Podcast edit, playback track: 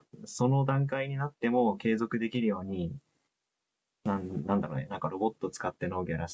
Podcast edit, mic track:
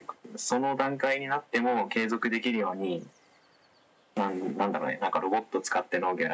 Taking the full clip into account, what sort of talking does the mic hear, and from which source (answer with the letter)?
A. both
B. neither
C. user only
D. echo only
D